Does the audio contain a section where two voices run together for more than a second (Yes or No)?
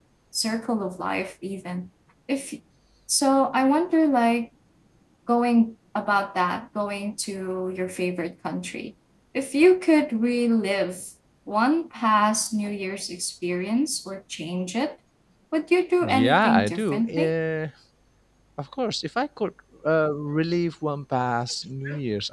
Yes